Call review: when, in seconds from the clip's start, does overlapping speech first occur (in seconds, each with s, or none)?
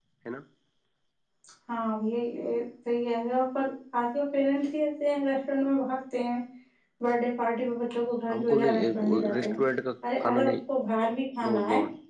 8.3 s